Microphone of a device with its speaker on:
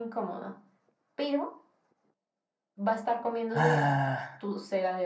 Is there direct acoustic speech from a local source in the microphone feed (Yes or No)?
Yes